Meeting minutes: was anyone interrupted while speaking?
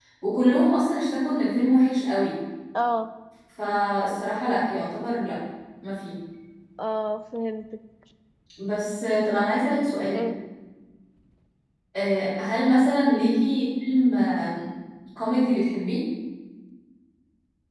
No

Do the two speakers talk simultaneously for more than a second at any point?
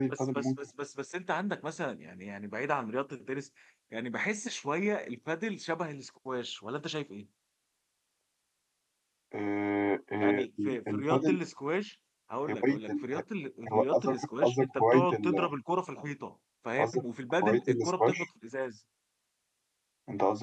Yes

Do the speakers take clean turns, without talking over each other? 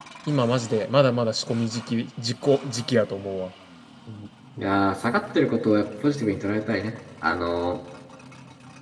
Yes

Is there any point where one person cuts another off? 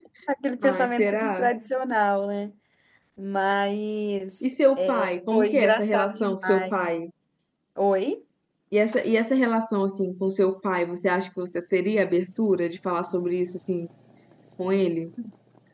Yes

